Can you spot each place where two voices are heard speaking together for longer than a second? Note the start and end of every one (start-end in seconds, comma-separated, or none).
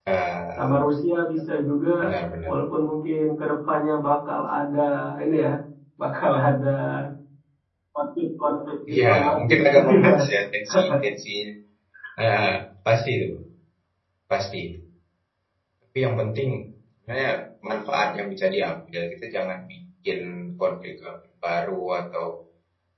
8.9-10.1